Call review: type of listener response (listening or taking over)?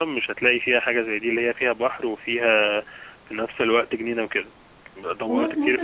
taking over